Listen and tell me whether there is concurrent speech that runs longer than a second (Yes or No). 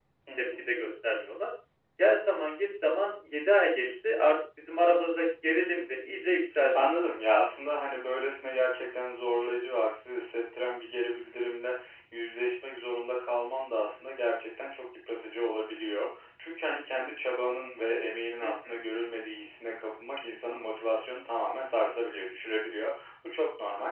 No